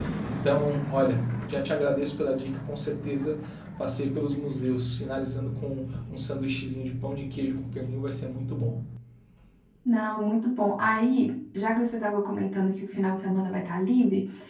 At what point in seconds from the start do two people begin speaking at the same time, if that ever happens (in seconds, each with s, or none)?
none